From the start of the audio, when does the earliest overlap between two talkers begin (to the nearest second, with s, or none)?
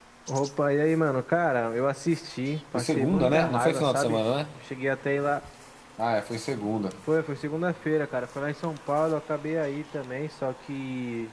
3 s